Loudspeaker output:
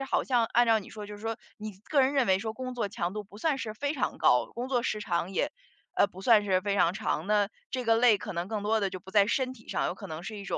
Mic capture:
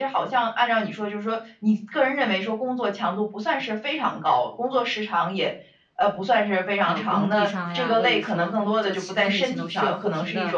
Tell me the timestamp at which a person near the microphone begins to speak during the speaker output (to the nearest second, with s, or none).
7 s